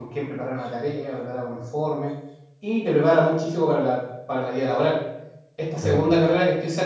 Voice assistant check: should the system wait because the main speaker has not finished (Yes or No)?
Yes